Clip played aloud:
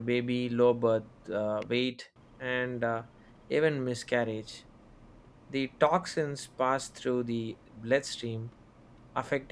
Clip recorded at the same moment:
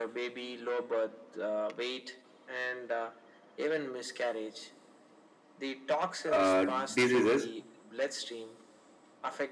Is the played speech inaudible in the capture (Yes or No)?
No